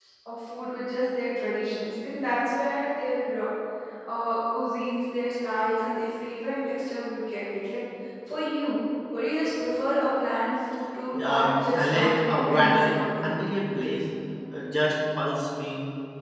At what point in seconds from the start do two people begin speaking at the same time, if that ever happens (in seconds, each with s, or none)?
11.1 s